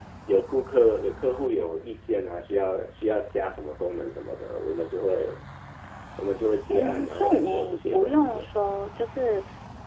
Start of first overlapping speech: 6.7 s

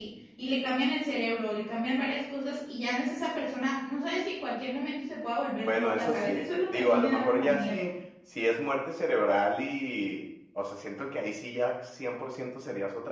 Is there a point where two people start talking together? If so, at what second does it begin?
5.6 s

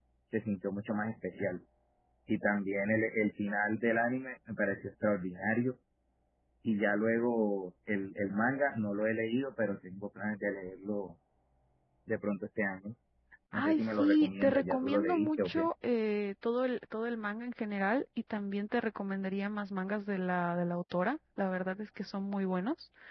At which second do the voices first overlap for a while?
13.6 s

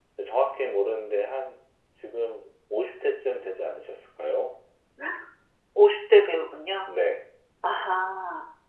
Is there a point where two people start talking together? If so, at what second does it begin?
none

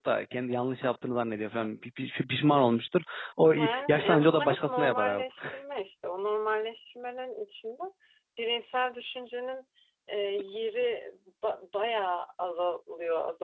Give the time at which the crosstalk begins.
3.5 s

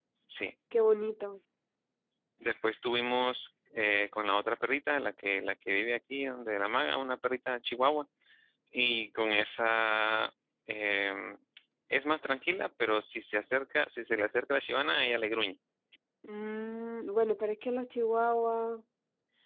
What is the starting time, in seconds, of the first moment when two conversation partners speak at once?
none

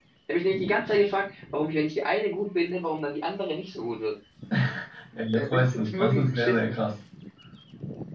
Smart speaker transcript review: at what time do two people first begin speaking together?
5.3 s

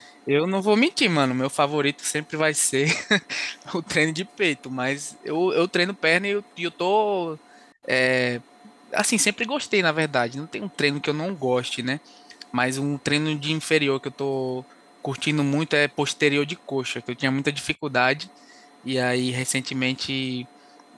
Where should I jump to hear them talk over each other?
none

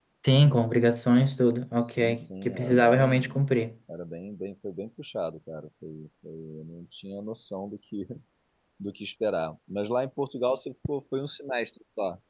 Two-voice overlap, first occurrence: 1.8 s

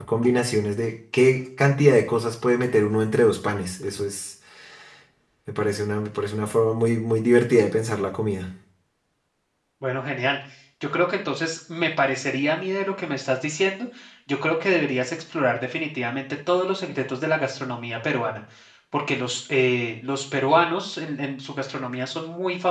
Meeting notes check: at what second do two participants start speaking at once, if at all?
none

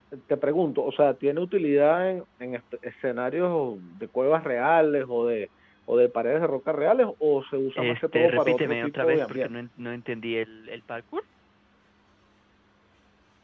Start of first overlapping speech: 7.8 s

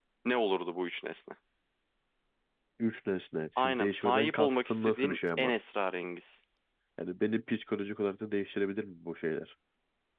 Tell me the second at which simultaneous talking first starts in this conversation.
3.6 s

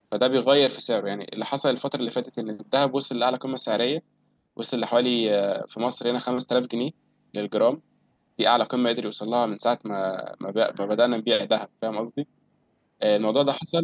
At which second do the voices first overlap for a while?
none

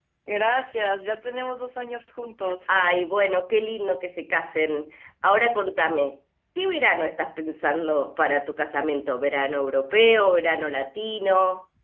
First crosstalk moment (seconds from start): none

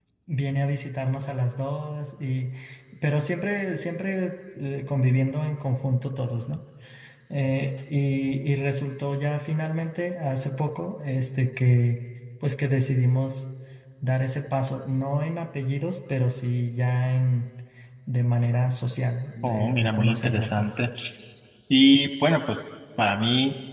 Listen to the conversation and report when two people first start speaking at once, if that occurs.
19.4 s

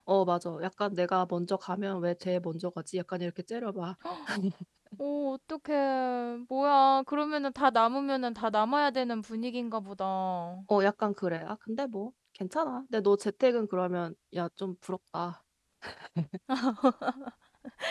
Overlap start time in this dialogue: none

